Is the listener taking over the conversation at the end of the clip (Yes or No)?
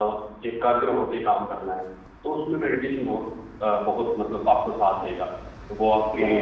Yes